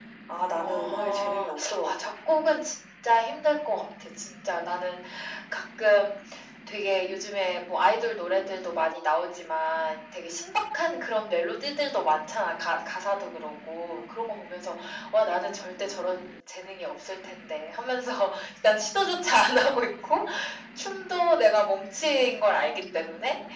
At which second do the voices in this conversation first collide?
0.6 s

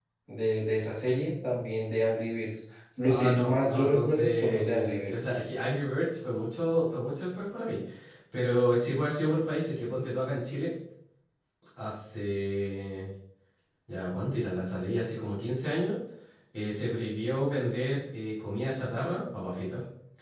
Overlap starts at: 3.1 s

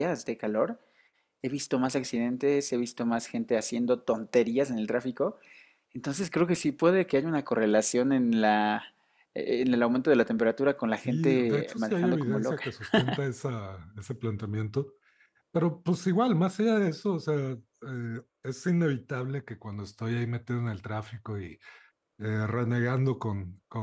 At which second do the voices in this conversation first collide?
11.0 s

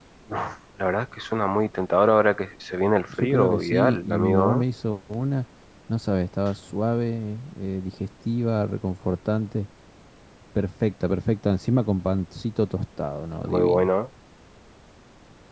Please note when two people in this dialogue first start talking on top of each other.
3.2 s

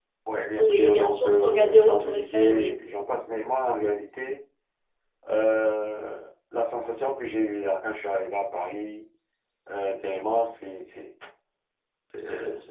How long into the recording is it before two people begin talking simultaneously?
0.6 s

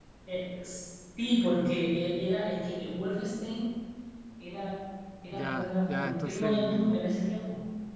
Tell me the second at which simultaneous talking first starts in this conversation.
5.3 s

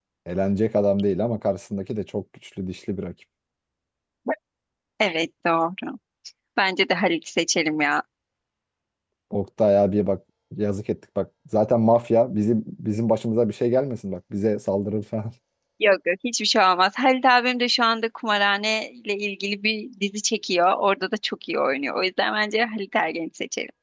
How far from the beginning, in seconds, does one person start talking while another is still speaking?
none

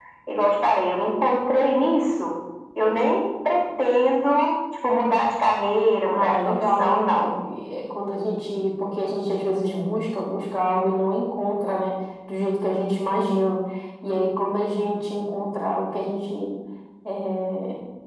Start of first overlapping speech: 6.1 s

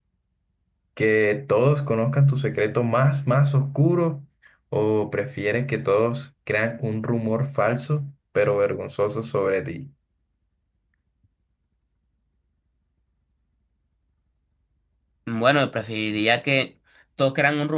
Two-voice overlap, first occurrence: none

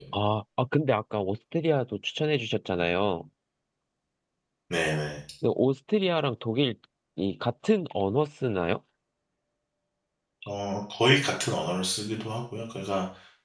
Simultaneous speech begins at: none

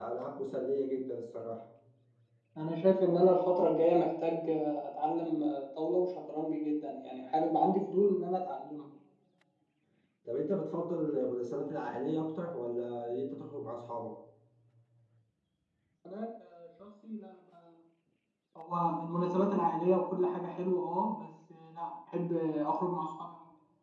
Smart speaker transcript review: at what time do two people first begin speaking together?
none

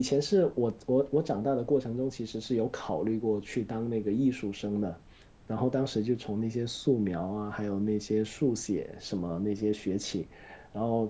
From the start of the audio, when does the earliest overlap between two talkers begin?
none

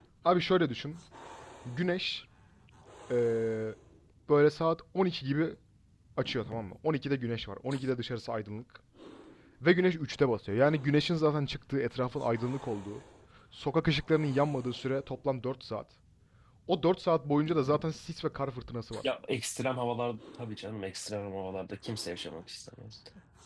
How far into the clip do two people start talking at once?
none

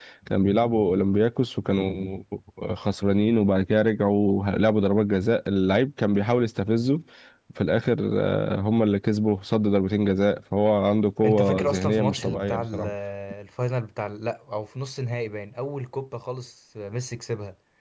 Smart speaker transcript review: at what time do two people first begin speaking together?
11.2 s

